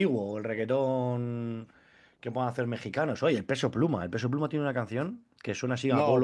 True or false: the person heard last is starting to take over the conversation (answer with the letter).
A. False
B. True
A